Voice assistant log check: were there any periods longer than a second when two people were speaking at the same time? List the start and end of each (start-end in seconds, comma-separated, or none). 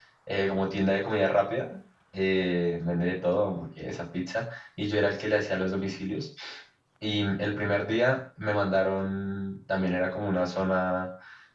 none